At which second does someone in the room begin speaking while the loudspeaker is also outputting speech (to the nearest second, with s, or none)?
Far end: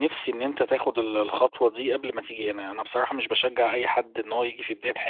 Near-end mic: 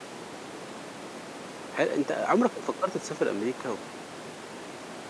2 s